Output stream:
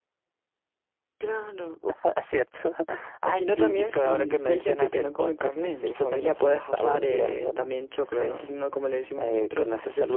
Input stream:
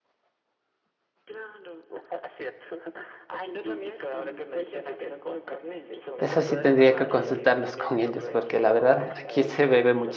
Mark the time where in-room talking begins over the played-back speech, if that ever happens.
6.2 s

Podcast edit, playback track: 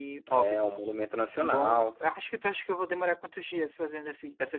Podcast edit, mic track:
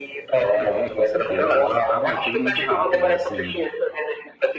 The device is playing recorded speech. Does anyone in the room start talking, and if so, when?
0.5 s

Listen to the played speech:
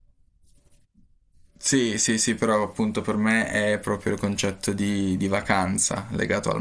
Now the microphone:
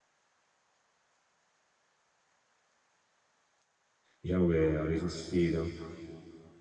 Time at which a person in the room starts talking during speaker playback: 4.2 s

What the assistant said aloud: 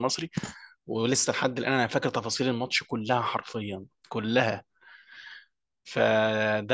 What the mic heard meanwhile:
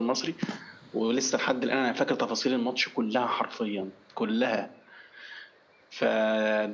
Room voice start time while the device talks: none

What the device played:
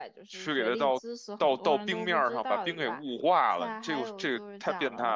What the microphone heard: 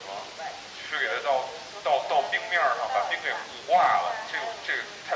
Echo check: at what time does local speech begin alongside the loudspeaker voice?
none

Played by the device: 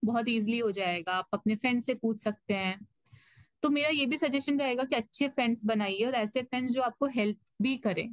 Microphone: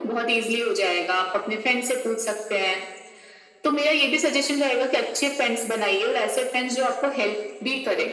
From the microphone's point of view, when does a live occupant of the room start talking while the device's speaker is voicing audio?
none

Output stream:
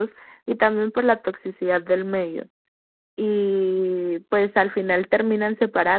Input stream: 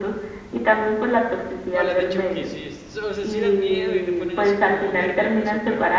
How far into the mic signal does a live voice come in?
1.7 s

